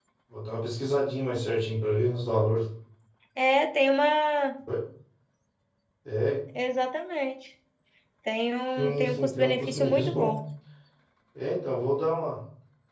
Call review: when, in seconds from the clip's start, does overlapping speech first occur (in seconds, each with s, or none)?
8.8 s